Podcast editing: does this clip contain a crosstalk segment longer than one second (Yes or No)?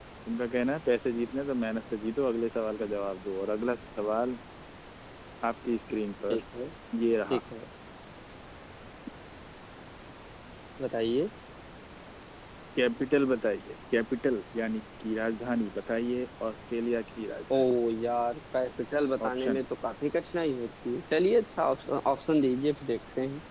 No